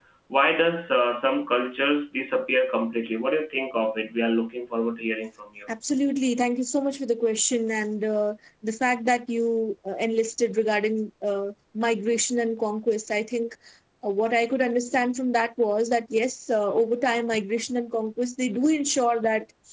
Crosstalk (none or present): none